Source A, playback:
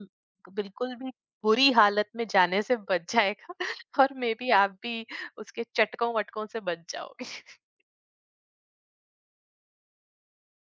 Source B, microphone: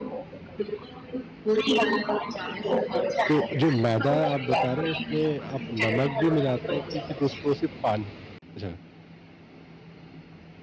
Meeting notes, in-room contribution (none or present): present